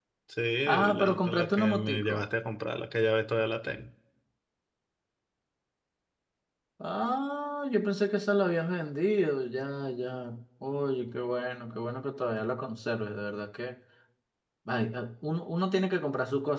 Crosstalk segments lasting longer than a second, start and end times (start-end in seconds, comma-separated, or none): 0.9-2.3